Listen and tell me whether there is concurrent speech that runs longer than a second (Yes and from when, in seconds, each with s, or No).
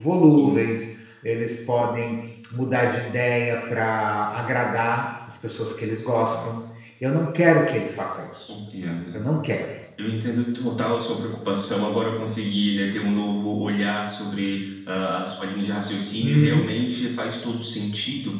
No